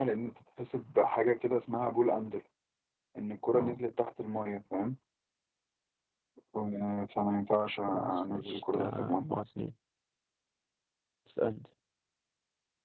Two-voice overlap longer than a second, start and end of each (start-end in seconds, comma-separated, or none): 7.9-9.3